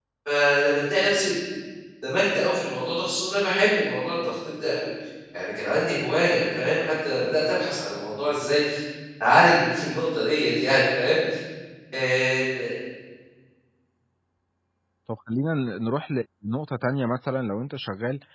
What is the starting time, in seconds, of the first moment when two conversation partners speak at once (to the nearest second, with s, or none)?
none